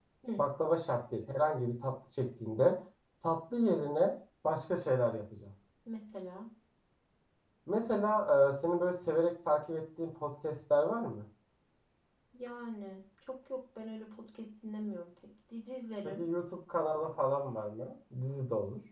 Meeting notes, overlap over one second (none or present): none